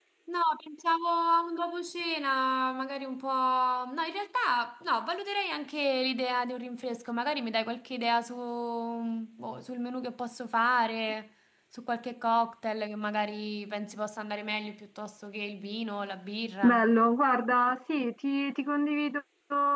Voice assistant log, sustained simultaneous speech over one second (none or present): none